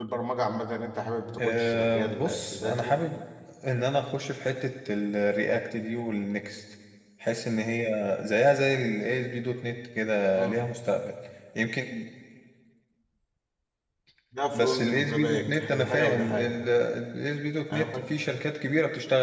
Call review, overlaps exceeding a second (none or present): present